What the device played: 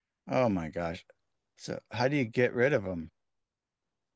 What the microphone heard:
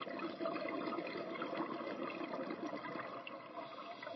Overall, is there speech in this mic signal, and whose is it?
neither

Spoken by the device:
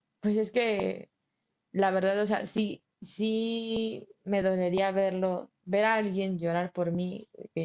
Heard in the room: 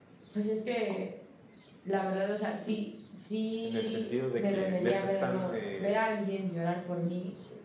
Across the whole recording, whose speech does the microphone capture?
both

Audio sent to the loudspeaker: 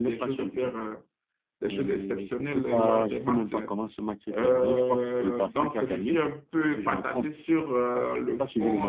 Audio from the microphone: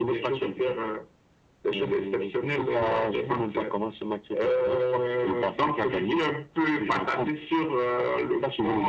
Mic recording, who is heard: echo only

